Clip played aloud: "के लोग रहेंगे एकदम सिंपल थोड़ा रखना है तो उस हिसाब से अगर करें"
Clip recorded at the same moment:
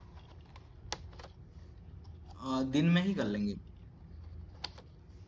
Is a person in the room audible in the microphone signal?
Yes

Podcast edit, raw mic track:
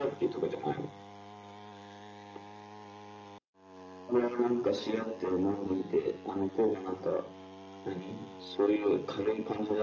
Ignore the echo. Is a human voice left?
No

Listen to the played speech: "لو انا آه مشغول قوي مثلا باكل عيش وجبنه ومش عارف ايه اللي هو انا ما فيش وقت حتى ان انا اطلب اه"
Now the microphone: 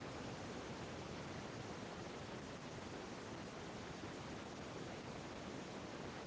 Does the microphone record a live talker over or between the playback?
No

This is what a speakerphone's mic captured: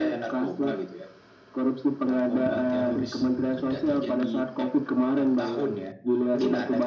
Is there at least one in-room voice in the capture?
No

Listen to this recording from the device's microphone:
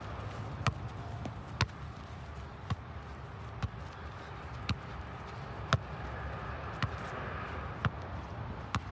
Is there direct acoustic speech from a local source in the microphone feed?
No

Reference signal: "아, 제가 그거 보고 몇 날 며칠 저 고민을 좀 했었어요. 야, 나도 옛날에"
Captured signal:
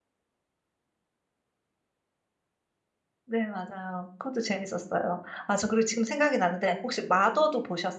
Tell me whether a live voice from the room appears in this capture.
Yes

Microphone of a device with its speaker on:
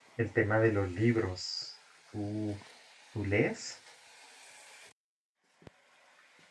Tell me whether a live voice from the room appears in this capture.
Yes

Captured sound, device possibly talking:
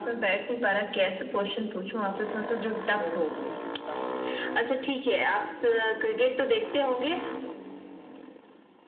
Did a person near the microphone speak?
Yes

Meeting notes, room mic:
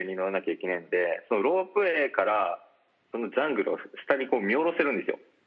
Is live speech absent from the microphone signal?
Yes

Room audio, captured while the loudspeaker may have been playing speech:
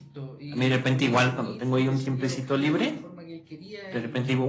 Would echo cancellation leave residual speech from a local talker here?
Yes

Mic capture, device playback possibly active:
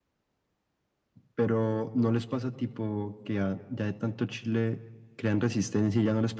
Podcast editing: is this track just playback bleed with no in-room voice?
Yes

